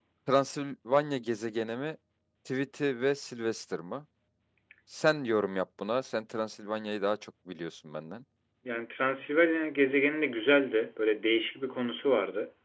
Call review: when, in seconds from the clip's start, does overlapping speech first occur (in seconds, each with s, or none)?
none